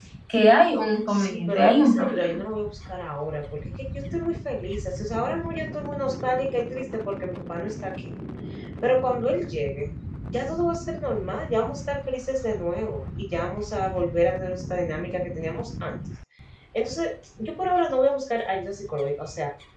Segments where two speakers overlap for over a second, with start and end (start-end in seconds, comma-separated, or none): 1.1-2.4